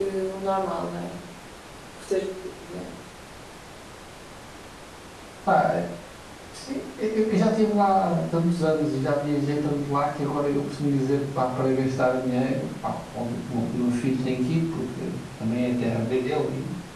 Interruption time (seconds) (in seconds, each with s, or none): none